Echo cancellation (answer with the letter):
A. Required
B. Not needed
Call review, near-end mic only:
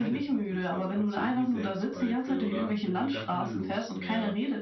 A